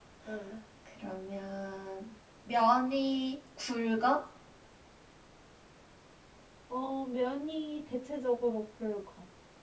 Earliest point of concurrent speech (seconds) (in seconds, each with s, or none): none